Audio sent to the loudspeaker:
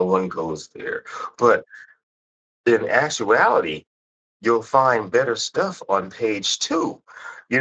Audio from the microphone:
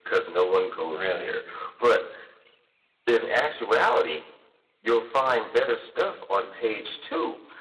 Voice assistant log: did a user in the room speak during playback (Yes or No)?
Yes